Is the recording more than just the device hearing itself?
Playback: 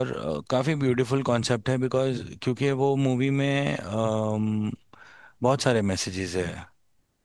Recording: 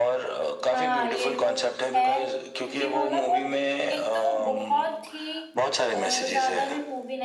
Yes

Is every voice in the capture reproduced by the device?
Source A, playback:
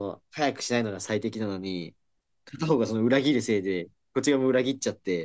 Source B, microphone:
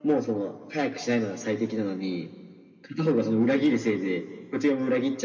Yes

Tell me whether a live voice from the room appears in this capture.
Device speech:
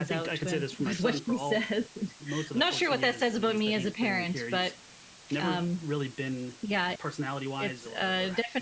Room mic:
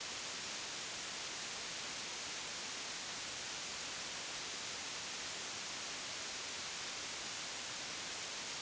No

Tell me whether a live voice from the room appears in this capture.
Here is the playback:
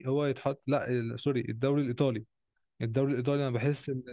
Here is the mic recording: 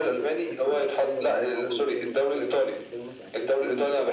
Yes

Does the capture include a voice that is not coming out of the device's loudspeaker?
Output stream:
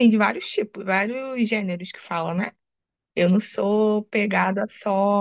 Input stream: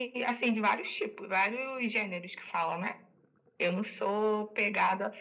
No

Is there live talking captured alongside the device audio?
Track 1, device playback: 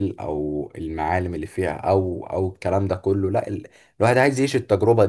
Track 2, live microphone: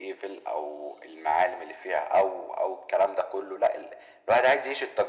No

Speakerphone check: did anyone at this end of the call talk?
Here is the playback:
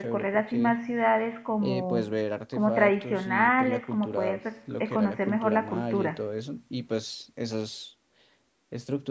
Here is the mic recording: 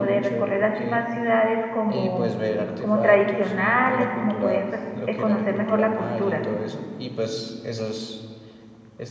No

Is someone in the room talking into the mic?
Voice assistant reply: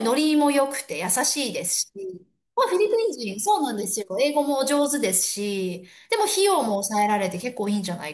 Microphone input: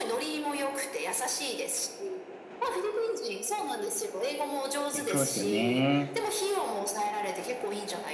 Yes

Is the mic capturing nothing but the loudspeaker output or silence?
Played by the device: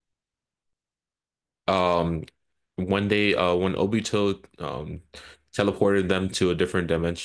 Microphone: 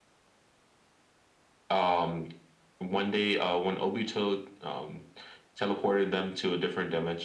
Yes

